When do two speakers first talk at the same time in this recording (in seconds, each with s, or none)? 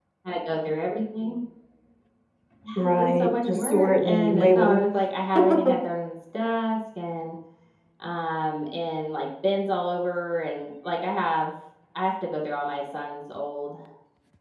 2.8 s